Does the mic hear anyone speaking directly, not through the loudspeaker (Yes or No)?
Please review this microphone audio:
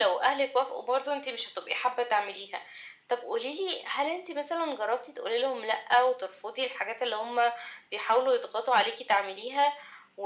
No